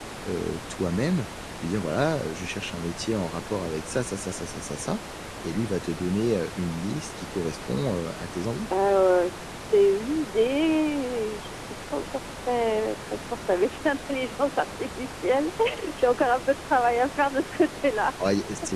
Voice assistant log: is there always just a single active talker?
Yes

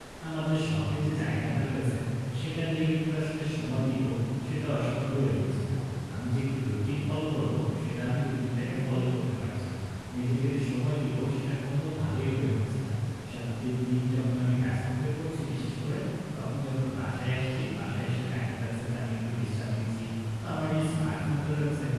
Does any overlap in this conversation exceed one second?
No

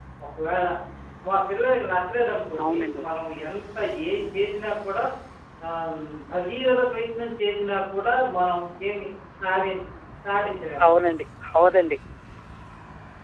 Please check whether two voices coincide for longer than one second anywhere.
No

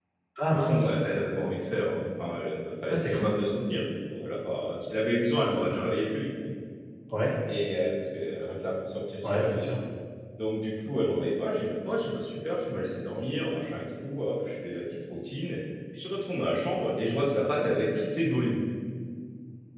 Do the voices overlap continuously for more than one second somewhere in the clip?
No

